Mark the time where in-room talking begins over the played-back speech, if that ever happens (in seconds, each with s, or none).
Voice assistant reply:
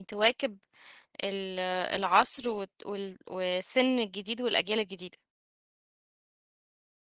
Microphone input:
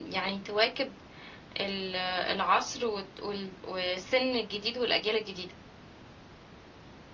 none